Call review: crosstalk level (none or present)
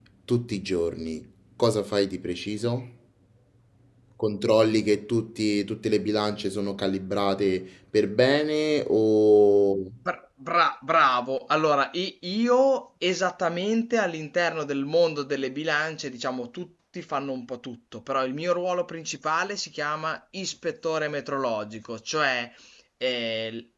none